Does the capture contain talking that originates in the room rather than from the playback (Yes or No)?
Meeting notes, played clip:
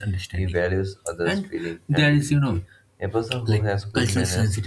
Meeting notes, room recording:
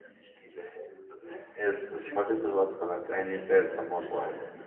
Yes